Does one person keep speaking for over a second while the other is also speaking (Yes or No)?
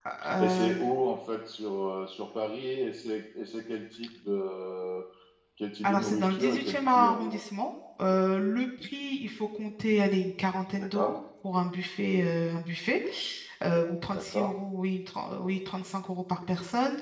Yes